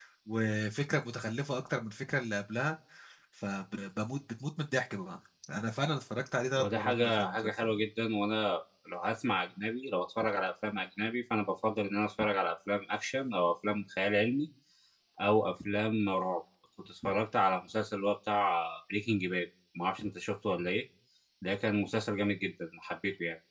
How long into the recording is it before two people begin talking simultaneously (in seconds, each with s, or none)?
6.6 s